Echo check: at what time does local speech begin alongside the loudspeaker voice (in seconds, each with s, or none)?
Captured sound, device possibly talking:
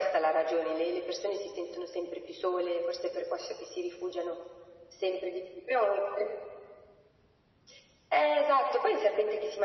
none